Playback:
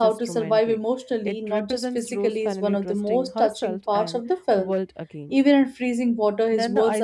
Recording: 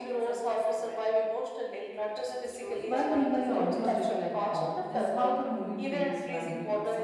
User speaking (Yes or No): Yes